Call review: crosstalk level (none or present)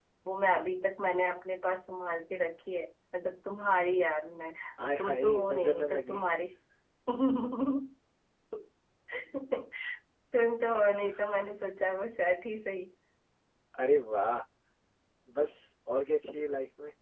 present